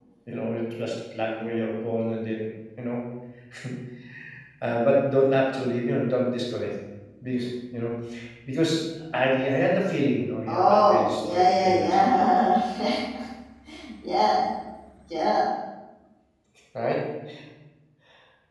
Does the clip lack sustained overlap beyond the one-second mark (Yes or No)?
No